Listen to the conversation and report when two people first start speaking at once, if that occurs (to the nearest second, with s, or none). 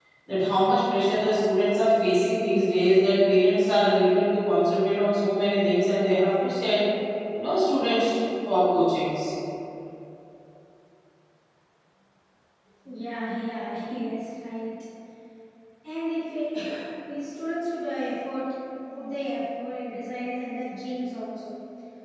none